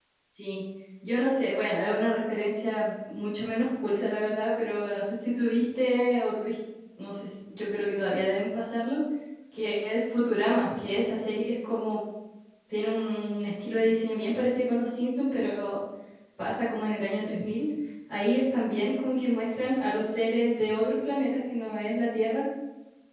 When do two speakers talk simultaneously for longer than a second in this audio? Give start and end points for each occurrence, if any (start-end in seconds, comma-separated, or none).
none